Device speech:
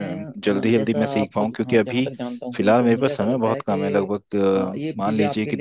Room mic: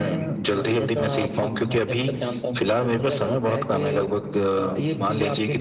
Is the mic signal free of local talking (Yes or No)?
Yes